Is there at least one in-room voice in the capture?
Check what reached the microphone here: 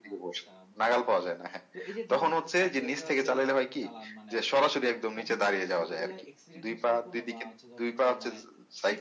Yes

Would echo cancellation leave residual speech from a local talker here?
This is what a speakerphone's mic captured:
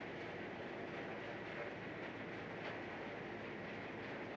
No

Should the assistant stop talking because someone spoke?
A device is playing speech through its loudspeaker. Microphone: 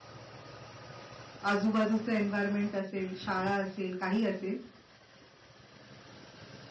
Yes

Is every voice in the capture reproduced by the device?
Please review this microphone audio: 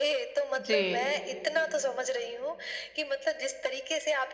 No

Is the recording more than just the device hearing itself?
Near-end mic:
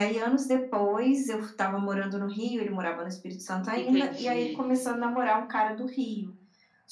Yes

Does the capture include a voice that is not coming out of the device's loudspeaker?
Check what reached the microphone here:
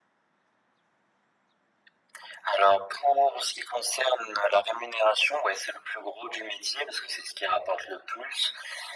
No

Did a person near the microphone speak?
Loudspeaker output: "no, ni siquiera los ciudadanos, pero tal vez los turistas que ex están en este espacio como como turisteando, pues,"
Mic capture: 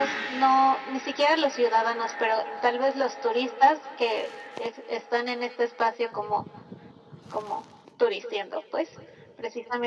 No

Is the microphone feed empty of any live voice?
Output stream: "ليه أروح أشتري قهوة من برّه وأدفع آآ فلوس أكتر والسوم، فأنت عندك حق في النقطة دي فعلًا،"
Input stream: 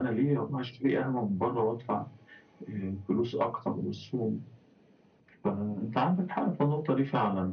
Yes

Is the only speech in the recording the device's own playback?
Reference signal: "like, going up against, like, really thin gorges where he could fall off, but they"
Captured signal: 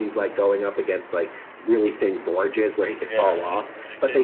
No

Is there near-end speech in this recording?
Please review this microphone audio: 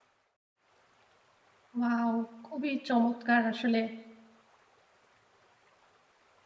Yes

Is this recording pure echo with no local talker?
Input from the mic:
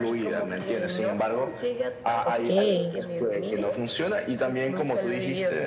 No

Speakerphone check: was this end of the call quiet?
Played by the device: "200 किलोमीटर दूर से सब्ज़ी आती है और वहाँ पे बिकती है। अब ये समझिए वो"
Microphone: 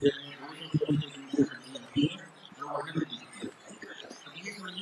Yes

